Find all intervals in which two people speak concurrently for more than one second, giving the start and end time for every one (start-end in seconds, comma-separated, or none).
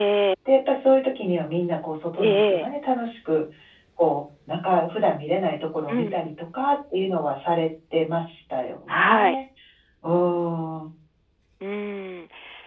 none